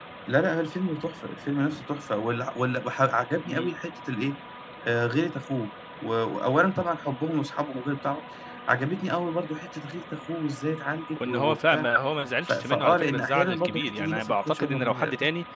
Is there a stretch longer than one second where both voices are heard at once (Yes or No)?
Yes